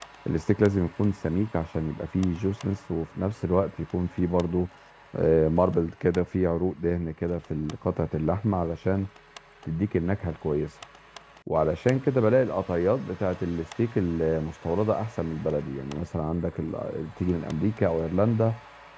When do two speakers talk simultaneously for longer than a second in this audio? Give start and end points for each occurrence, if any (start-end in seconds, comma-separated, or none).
none